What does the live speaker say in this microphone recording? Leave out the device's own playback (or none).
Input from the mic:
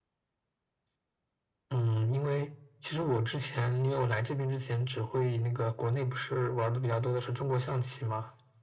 none